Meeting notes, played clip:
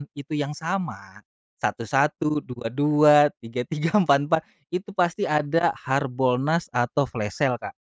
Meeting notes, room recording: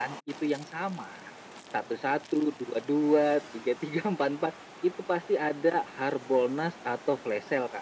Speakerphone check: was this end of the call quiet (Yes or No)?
Yes